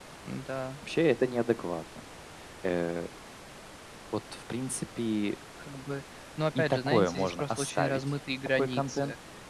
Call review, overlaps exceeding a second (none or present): present